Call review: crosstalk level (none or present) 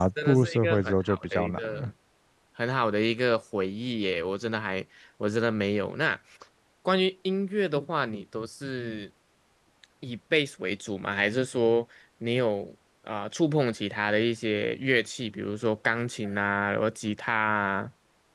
present